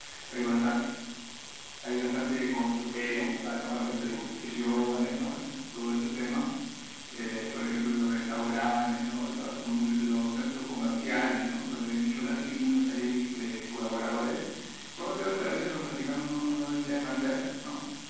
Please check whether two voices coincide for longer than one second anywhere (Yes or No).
Yes